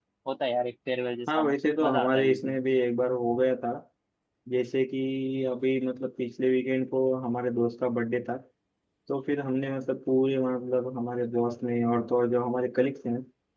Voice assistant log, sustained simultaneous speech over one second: present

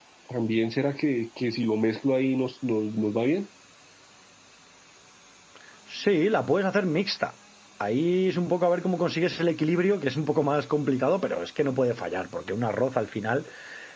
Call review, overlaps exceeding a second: none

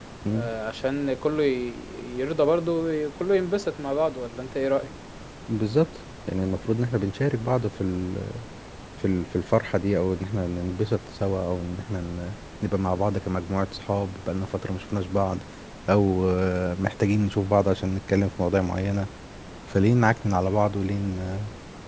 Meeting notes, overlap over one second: none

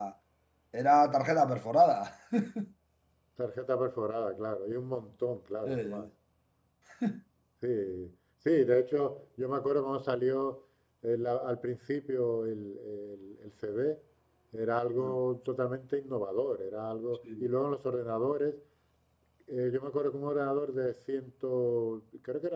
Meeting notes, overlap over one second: none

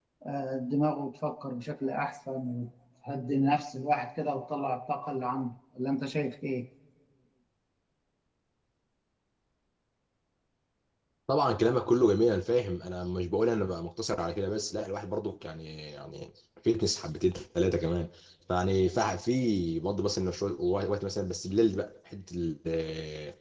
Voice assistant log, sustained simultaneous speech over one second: none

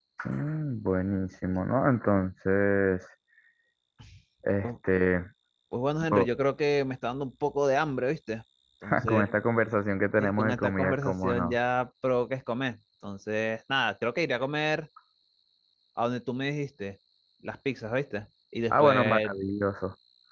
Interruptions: present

